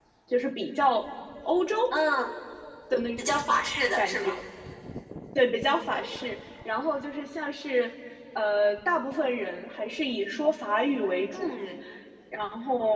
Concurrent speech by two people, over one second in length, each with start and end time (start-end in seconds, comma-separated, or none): none